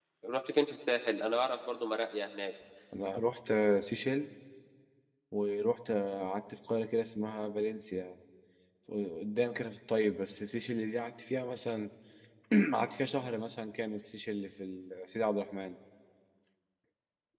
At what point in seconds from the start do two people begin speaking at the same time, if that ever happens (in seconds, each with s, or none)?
none